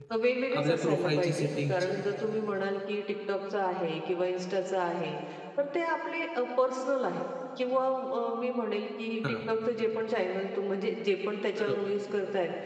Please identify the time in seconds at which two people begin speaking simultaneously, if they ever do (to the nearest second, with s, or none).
1 s